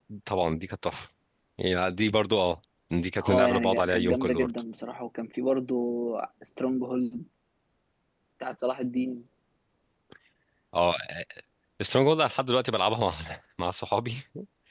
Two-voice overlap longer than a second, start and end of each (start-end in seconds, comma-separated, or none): 3.2-4.5